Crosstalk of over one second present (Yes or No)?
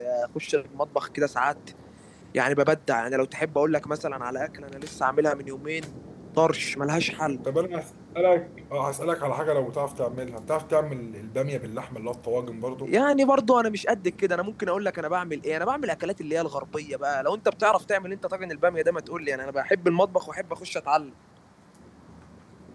No